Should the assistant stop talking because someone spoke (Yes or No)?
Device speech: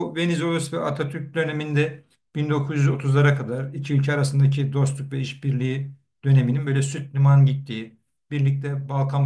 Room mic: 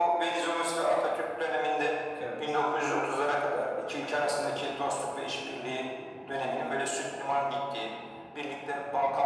Yes